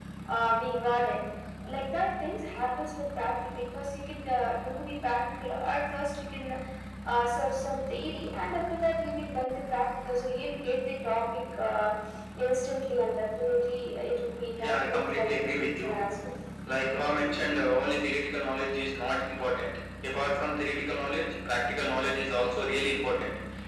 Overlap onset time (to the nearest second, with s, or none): 15 s